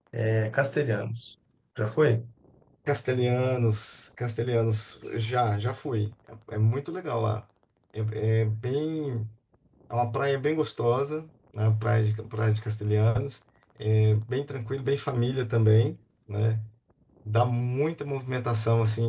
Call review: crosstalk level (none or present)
none